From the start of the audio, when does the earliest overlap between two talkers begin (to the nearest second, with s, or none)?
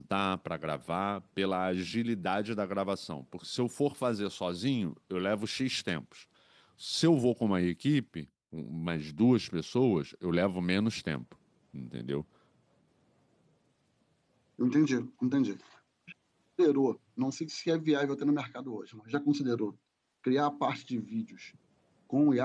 none